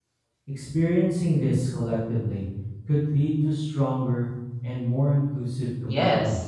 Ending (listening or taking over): taking over